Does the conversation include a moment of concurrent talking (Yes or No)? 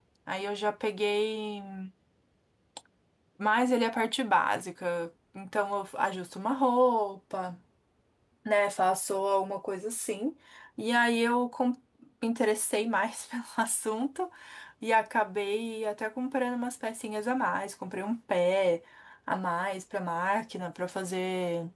No